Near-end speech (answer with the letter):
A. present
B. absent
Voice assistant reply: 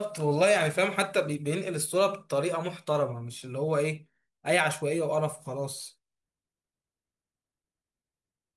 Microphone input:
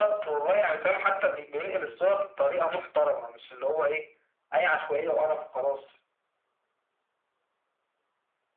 B